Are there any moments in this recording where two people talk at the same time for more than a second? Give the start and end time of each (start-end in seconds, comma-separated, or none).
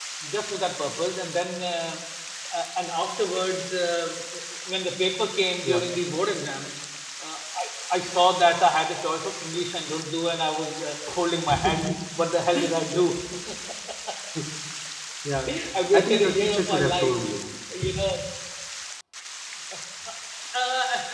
15.9-17.2